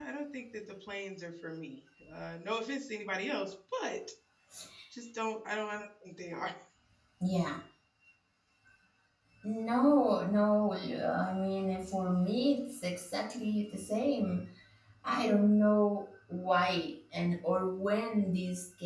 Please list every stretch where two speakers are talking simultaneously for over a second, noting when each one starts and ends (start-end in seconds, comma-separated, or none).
none